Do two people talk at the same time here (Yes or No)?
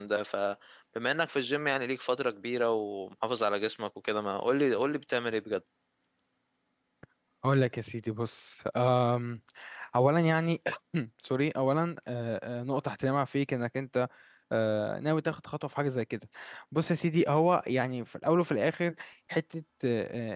No